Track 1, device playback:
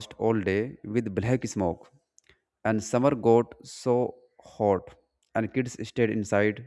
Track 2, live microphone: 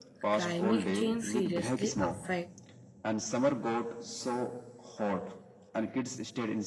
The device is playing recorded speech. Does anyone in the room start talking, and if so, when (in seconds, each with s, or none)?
0.3 s